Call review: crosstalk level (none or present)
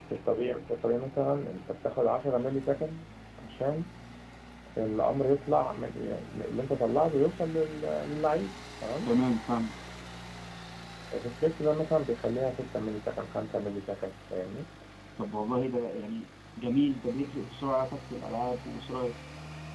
none